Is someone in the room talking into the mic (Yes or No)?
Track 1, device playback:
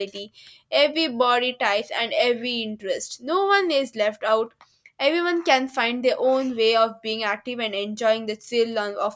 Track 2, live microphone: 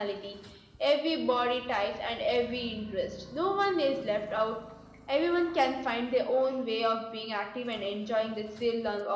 No